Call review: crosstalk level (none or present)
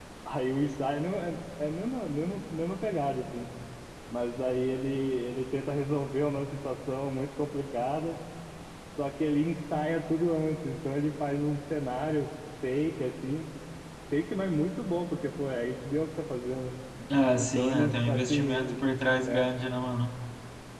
present